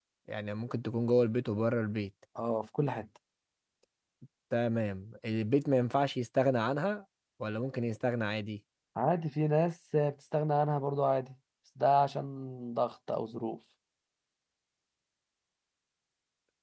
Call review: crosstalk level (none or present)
none